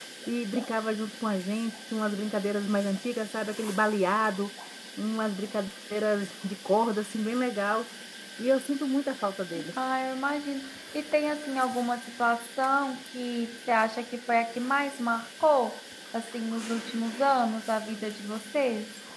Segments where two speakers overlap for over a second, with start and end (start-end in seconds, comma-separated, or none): none